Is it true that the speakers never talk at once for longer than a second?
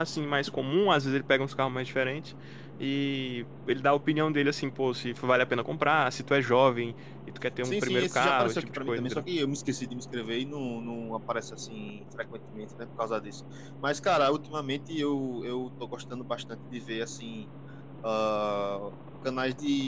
No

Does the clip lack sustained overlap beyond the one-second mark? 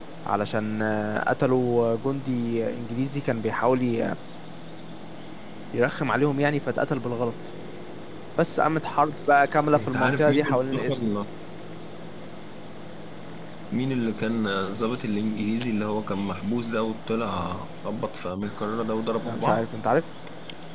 No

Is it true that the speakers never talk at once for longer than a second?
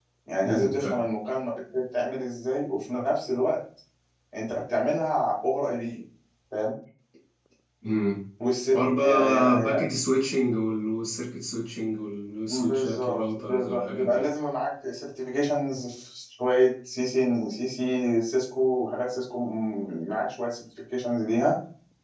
No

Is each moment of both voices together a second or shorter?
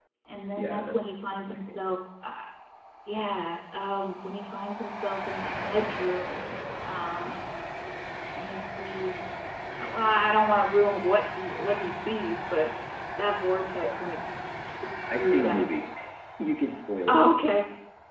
No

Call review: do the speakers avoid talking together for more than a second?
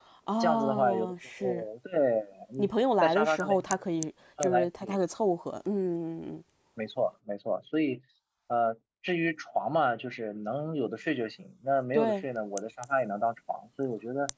No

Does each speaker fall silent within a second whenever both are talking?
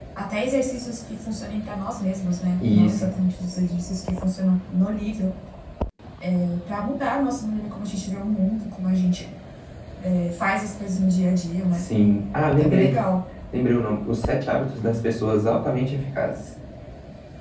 Yes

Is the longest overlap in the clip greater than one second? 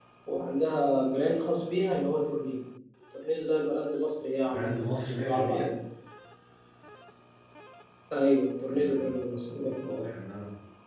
Yes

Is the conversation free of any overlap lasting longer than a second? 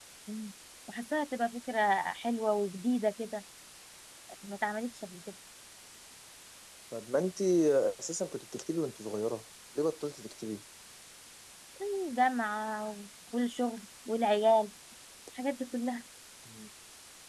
Yes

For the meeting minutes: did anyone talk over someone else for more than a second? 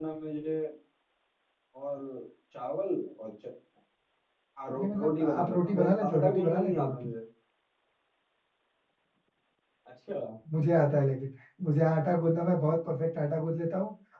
Yes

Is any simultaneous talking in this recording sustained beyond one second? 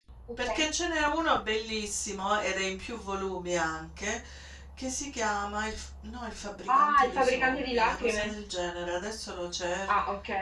Yes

